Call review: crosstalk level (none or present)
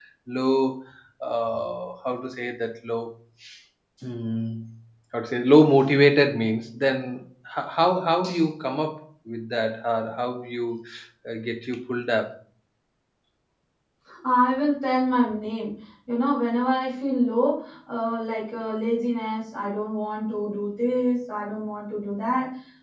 none